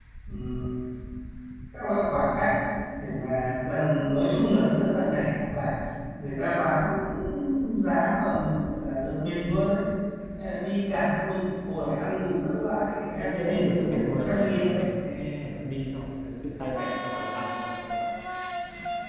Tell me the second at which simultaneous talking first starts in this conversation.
13.2 s

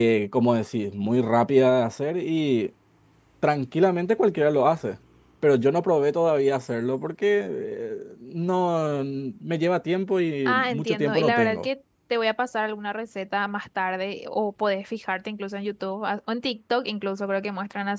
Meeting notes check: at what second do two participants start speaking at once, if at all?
10.5 s

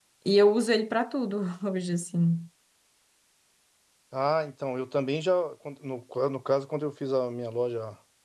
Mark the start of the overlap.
none

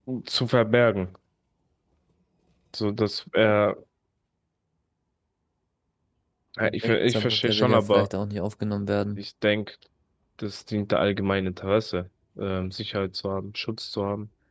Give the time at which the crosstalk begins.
6.7 s

